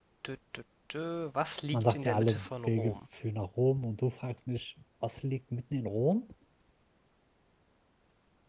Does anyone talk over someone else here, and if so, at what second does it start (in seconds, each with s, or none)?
1.7 s